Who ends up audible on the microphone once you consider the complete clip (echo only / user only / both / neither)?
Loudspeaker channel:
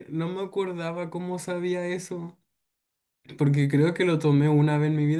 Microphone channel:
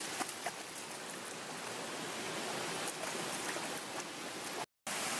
neither